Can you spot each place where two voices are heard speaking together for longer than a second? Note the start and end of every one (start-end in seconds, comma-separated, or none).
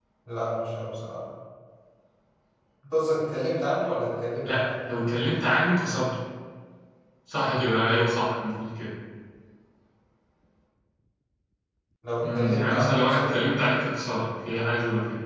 12.2-13.5